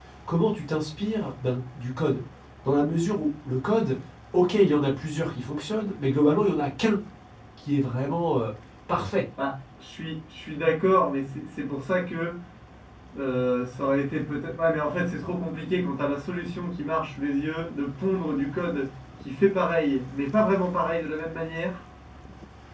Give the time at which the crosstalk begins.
none

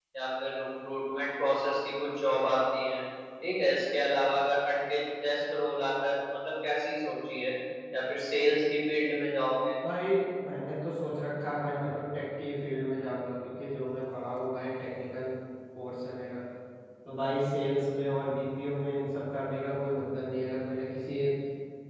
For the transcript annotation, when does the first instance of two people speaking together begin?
none

